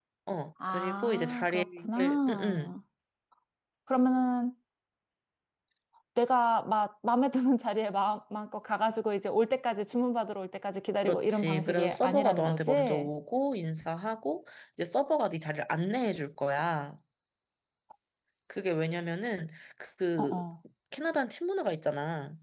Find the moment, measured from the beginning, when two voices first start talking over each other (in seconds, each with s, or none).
0.7 s